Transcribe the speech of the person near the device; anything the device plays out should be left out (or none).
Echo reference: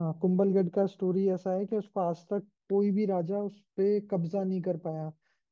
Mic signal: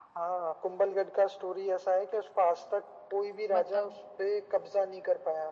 बताओ